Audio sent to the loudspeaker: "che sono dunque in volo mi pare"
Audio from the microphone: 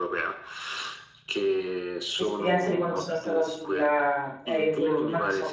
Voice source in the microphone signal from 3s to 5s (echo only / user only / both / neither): both